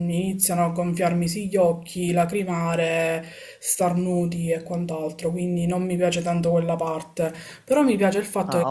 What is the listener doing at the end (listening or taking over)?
taking over